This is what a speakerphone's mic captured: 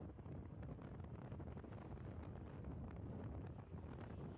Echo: none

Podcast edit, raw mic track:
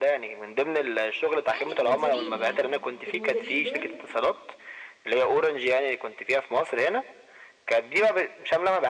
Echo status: present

